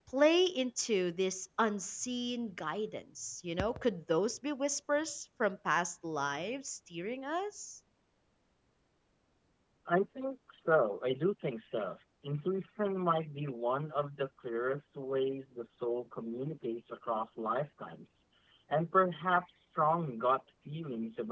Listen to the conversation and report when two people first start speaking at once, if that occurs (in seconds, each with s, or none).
none